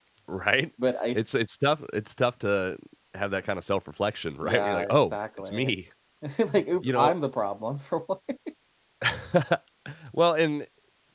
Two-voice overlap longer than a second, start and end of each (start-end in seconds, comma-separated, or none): 4.4-5.7